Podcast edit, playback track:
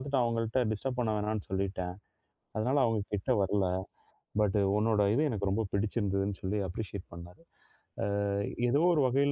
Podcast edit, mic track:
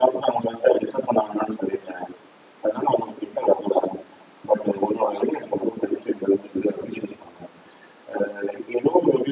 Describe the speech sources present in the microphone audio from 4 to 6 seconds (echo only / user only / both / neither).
echo only